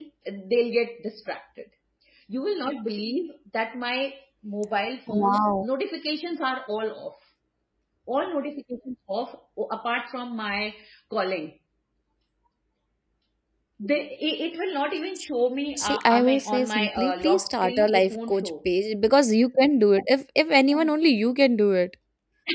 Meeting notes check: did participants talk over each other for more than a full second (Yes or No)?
Yes